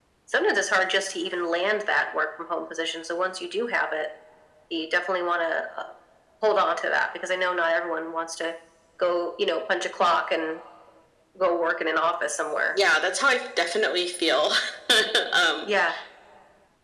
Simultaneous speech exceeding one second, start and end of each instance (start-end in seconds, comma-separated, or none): none